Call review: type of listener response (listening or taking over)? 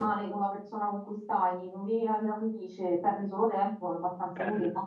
listening